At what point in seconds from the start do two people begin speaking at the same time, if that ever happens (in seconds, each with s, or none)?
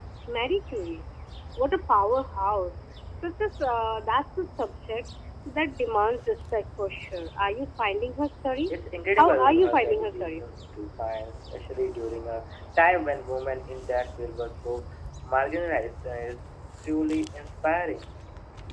9.2 s